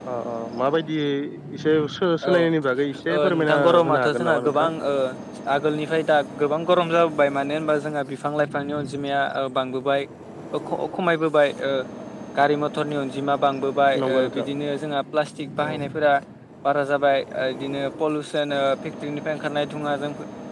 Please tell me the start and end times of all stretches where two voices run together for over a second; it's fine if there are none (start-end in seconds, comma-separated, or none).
3.2-4.7